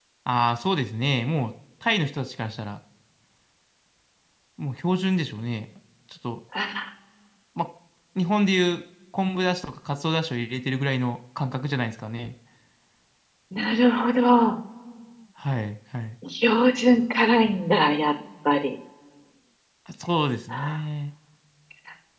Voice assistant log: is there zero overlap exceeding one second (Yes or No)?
Yes